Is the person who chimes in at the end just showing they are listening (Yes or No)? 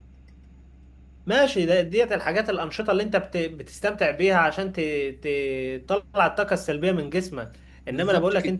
Yes